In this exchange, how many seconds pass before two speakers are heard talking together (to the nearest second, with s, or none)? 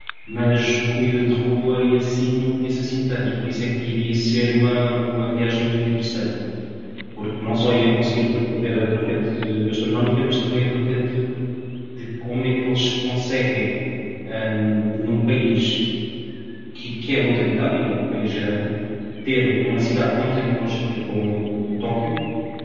none